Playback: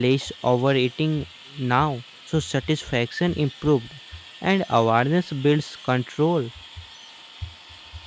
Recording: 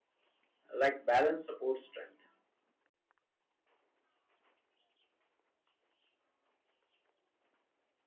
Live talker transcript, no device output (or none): Like balance supports strength.